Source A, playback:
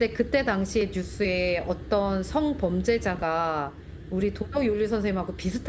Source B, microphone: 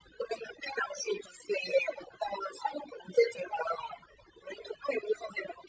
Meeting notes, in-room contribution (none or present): none